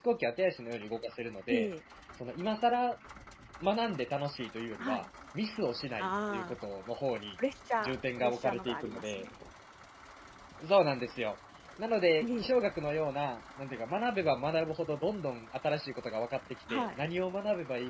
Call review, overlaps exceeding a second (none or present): present